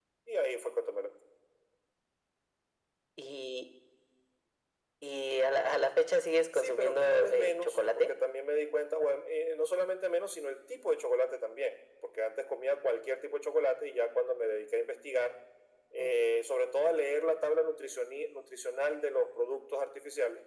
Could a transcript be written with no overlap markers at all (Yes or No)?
No